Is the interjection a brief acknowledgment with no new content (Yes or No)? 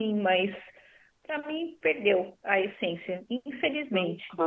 No